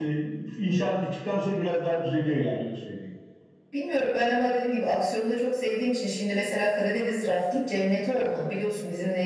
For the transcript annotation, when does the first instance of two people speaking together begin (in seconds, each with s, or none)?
none